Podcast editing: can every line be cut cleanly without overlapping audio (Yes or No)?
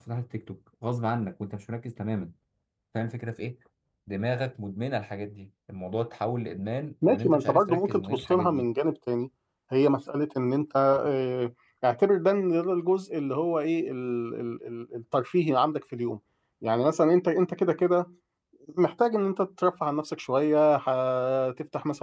No